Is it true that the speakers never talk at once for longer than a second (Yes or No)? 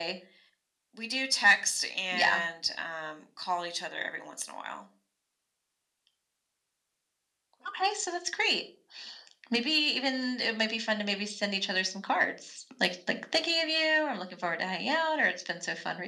Yes